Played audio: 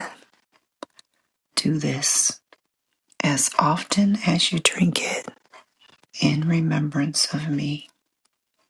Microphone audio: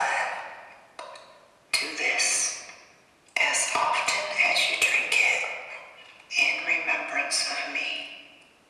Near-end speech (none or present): none